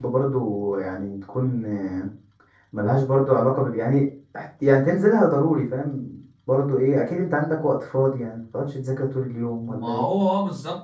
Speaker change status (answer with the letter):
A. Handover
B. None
A